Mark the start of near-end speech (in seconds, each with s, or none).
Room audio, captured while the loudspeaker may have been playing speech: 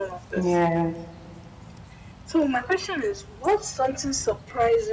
0.3 s